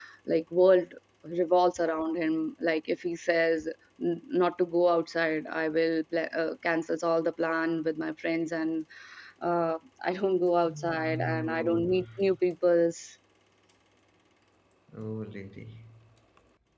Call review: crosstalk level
present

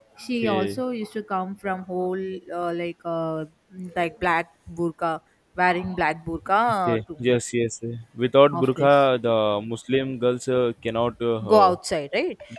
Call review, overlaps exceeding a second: none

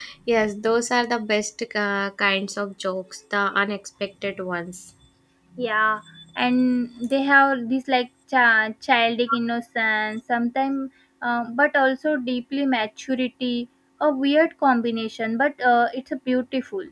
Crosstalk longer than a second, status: none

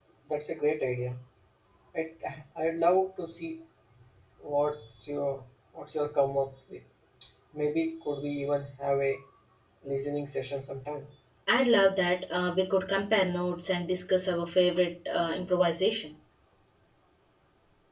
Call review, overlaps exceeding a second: none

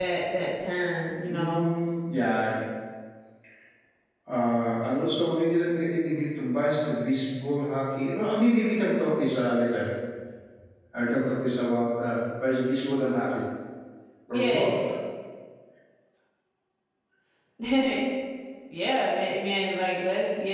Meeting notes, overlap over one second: none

